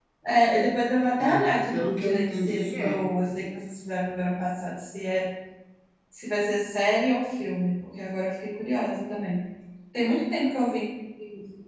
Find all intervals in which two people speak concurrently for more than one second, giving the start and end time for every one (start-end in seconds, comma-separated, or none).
1.2-3.0